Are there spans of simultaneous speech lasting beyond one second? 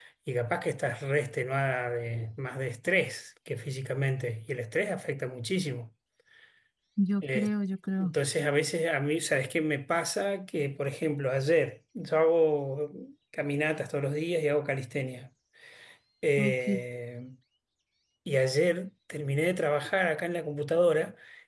No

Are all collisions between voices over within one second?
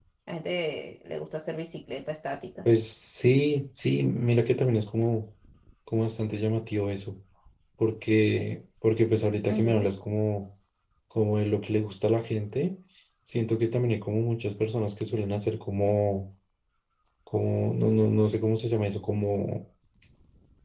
Yes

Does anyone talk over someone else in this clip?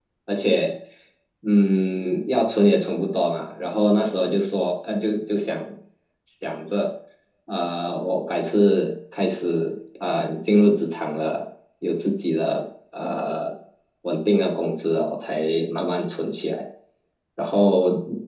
No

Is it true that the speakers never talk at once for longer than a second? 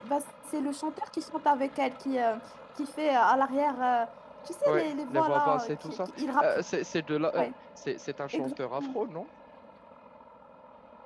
No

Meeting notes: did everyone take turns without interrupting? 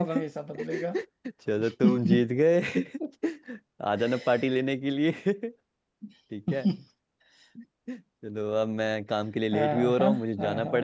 No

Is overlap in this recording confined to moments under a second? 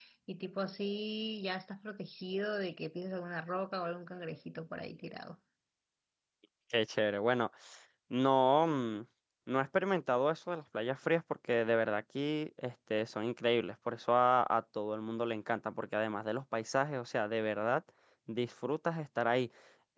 Yes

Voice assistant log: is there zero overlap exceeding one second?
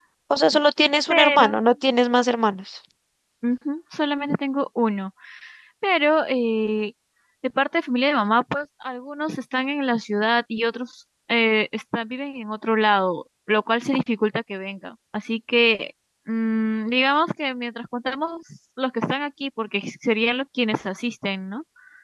Yes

